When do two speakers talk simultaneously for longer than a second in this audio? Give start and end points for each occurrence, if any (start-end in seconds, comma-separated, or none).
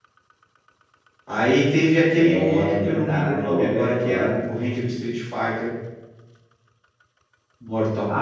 2.1-4.3